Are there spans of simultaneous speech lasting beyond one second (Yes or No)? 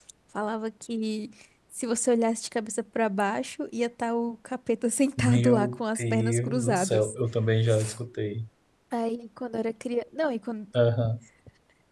Yes